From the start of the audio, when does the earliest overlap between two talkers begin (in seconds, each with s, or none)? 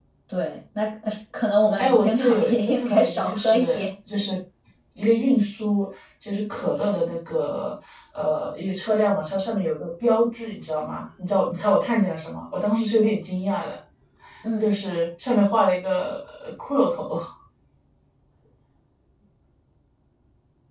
1.8 s